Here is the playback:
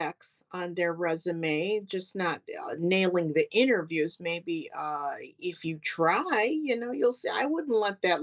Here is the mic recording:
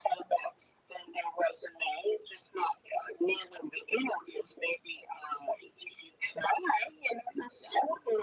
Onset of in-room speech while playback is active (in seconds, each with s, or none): none